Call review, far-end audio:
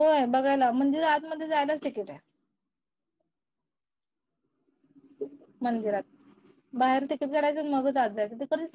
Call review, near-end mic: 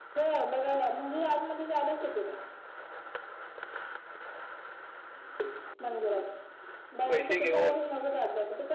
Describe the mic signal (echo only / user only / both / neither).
both